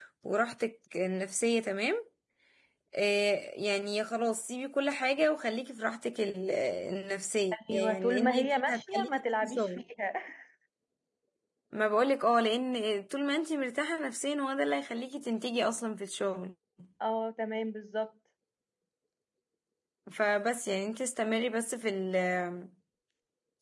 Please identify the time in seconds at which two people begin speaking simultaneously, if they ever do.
8 s

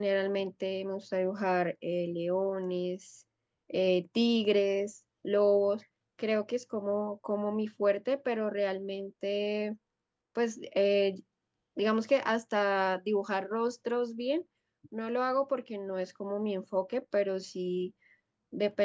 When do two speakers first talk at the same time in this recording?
none

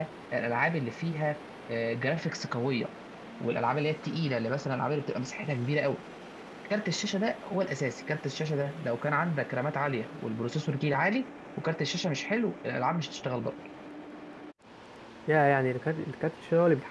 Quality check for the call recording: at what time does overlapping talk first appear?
none

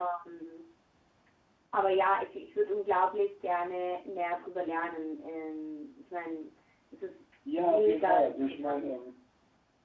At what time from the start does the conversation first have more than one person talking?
8 s

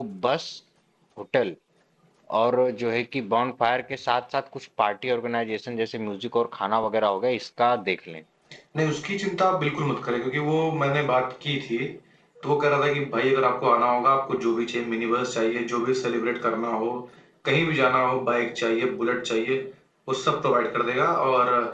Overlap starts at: none

